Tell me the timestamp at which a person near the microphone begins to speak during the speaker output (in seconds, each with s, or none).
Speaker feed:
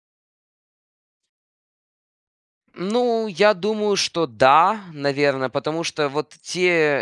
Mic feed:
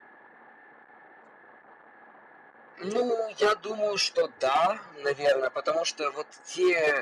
none